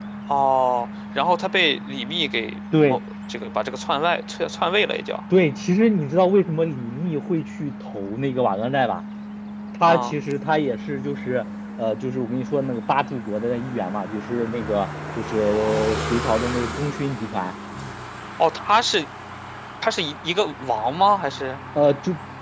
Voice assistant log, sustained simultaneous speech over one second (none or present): none